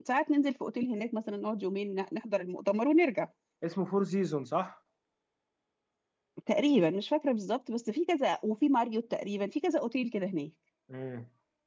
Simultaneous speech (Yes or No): No